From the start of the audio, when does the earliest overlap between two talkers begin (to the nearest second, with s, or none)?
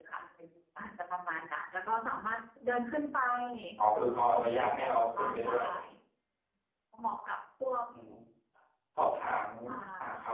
4 s